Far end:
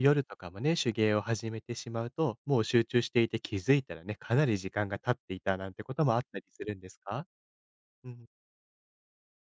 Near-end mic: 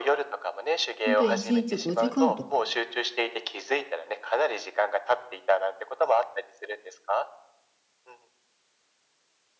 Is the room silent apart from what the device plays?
No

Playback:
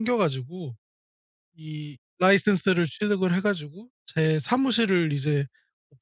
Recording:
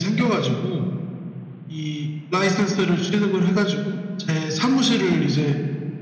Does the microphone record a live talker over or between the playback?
No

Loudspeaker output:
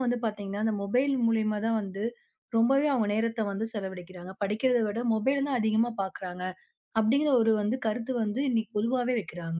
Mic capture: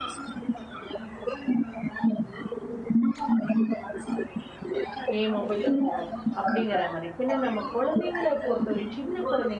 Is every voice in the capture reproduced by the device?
No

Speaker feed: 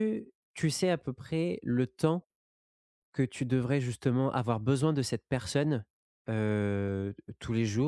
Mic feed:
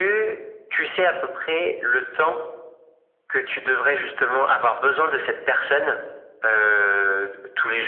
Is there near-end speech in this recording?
No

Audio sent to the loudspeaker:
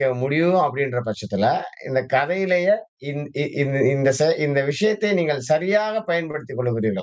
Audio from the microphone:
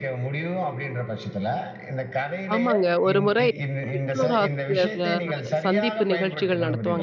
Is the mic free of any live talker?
No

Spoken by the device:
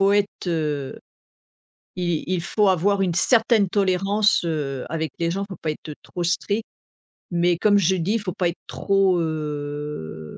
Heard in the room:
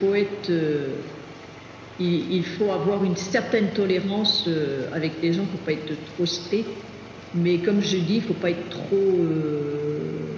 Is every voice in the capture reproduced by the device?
Yes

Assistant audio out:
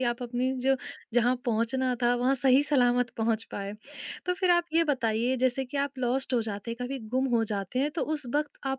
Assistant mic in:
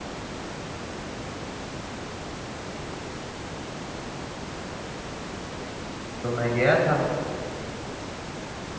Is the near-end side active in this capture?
Yes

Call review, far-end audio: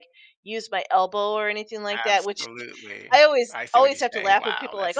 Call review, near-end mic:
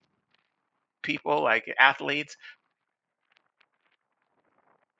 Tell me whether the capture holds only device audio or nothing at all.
No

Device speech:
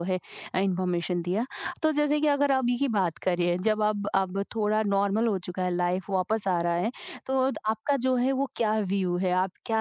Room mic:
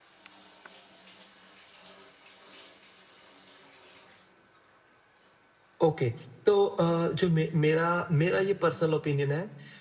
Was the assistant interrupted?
Yes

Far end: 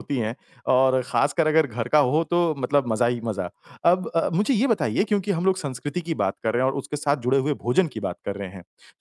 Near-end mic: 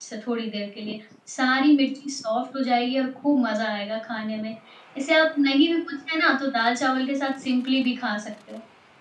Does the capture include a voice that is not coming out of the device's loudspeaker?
Yes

